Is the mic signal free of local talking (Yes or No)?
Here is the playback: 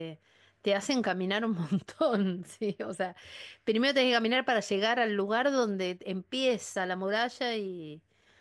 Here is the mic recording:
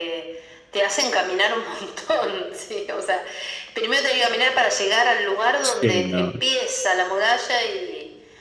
No